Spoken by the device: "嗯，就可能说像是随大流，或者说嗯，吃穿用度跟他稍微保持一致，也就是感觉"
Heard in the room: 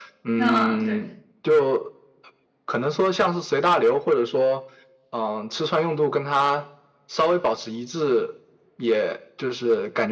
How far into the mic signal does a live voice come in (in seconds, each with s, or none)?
0.3 s